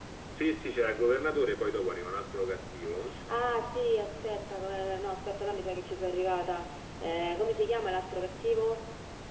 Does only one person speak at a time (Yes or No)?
Yes